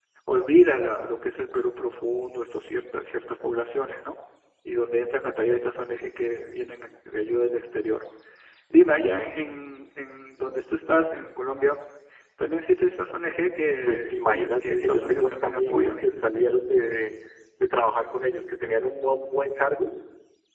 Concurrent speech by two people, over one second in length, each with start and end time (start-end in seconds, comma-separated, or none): 13.9-15.9